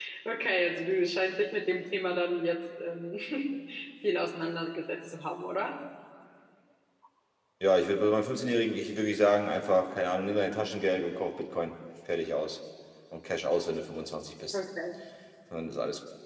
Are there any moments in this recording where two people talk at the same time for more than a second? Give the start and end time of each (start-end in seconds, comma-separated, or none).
none